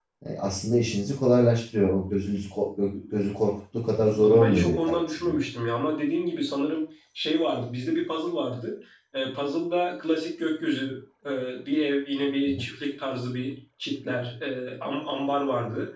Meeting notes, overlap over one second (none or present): present